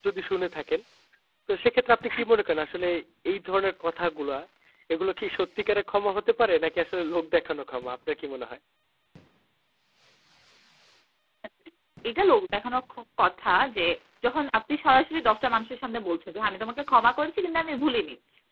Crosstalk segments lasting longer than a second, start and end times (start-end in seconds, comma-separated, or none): none